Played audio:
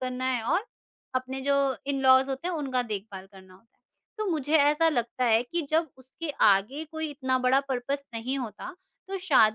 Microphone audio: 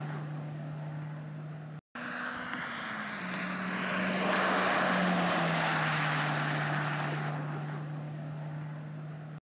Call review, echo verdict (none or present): none